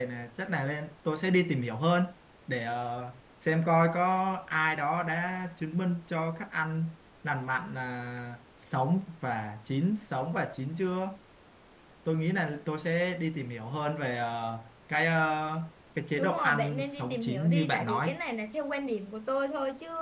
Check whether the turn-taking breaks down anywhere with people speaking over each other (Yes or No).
Yes